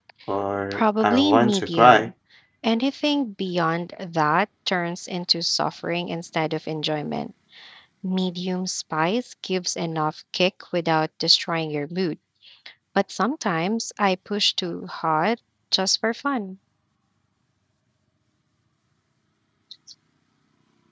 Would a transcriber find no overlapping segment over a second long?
No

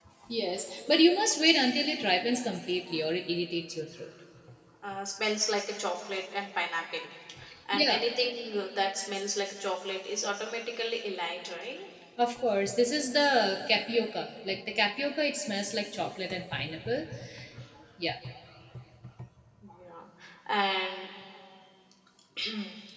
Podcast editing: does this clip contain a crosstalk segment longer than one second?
No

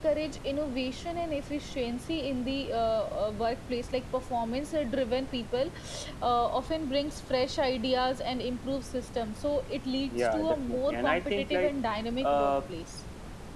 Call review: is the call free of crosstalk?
No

